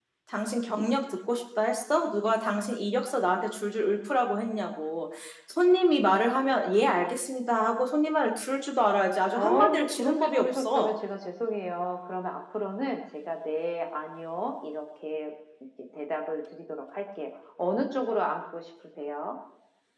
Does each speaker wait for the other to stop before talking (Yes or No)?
No